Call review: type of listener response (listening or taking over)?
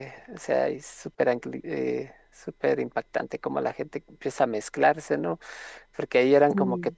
listening